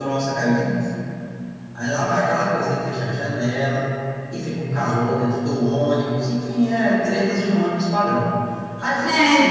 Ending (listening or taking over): taking over